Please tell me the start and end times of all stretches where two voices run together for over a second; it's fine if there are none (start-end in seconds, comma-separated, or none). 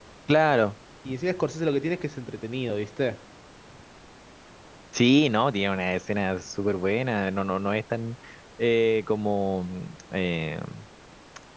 none